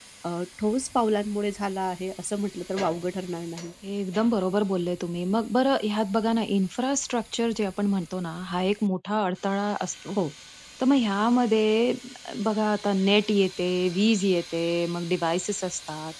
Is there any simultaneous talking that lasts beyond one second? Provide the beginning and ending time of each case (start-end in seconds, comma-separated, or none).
none